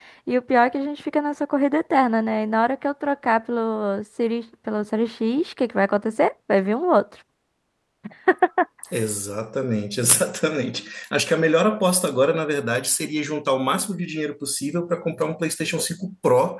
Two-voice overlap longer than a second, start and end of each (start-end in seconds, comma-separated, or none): none